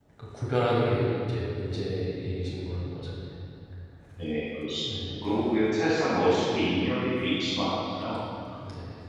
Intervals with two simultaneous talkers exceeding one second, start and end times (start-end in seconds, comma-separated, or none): none